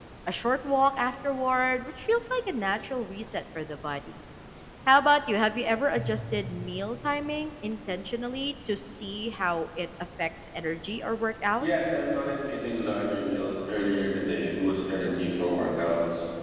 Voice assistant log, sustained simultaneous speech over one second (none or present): none